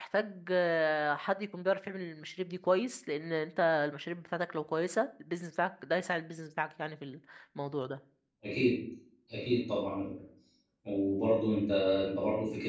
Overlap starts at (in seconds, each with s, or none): none